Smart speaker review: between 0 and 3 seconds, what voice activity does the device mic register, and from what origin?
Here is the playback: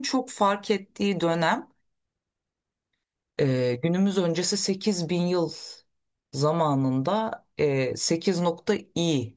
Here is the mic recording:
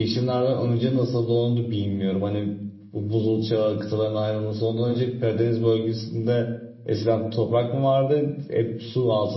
user only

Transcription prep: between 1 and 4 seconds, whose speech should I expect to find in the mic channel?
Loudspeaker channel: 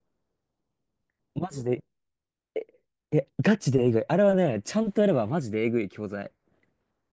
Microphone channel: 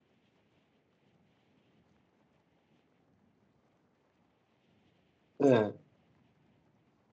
neither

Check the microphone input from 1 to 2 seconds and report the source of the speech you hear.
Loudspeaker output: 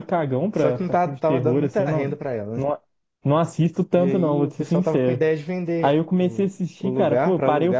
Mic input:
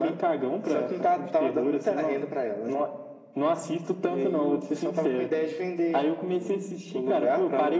echo only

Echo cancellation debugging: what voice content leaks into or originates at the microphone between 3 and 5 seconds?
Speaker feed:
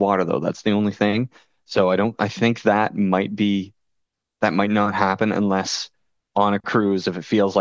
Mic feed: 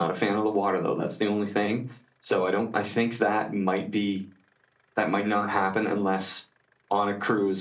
echo only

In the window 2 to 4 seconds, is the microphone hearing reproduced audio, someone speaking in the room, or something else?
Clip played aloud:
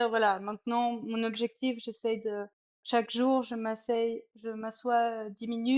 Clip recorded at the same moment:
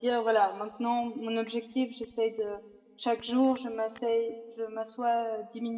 echo only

